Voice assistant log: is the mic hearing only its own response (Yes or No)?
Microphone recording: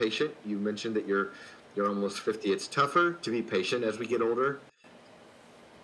Yes